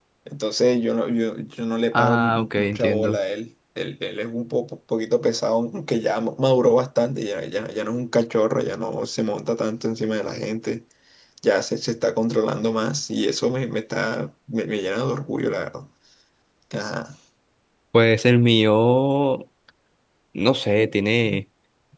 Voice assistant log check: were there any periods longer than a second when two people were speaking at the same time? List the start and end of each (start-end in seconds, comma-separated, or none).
1.9-3.2